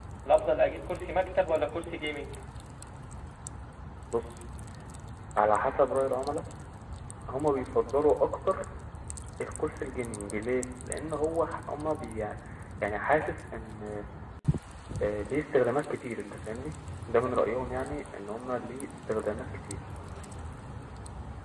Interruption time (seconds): none

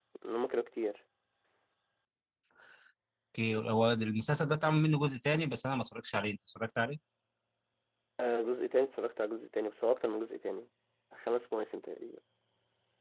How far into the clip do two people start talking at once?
none

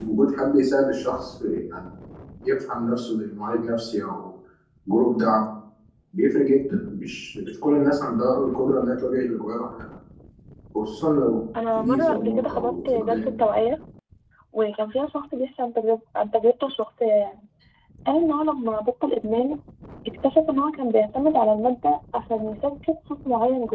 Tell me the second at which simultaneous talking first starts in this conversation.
11.6 s

